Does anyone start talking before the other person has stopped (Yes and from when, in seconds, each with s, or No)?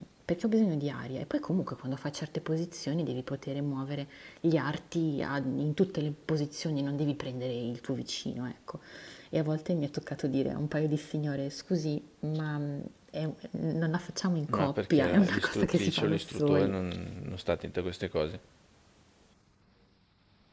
Yes, from 14.5 s